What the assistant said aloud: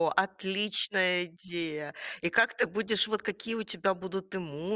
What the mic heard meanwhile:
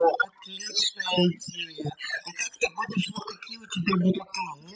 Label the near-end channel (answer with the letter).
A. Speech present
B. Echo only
B